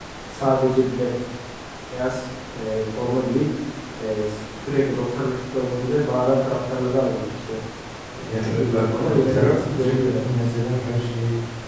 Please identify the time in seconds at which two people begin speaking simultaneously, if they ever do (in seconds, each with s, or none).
8.3 s